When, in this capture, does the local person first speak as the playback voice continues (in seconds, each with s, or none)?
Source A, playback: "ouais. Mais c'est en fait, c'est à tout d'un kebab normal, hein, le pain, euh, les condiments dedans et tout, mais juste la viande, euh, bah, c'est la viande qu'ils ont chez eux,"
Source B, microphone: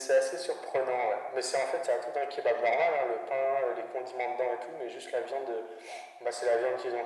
none